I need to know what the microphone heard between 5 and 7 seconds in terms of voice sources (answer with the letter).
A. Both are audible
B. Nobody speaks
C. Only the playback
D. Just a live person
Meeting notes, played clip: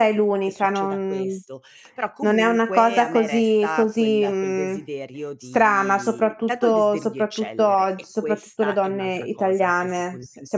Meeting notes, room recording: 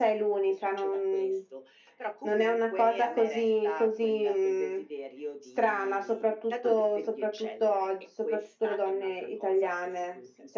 C